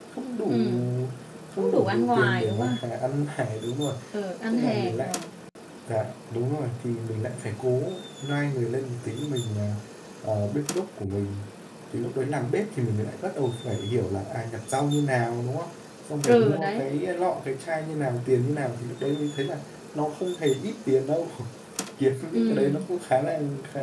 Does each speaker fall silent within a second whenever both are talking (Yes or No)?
No